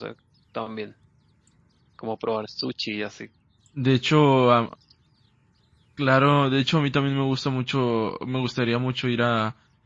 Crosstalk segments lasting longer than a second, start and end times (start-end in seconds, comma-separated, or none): none